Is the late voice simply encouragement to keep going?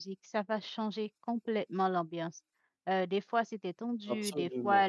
Yes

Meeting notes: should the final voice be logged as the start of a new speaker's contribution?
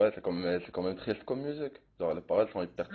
Yes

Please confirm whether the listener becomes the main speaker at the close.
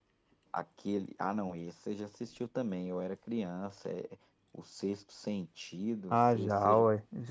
Yes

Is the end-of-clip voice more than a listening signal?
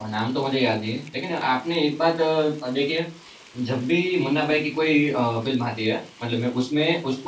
No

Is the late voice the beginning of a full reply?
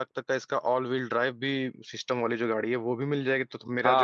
Yes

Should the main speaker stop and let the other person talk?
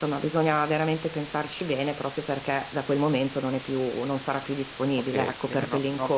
Yes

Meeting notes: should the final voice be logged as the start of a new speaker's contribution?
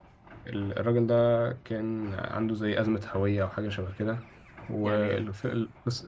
No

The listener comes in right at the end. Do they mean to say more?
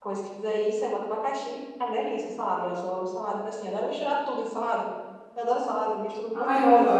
Yes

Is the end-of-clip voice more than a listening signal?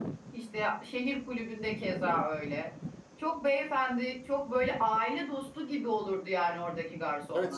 Yes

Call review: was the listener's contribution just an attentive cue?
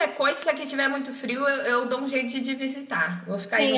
No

